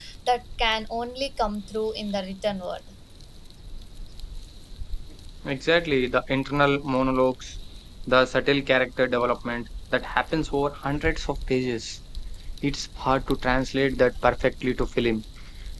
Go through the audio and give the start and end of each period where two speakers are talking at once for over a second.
none

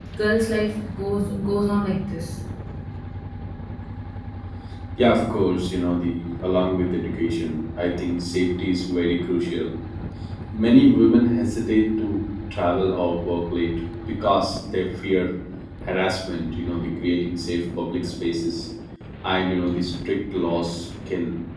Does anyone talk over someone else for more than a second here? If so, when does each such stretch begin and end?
none

